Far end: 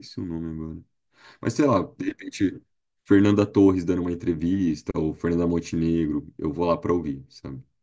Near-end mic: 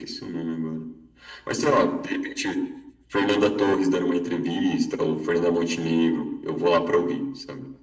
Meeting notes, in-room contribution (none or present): none